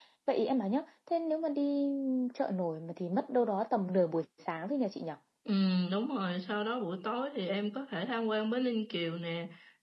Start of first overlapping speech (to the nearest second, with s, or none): none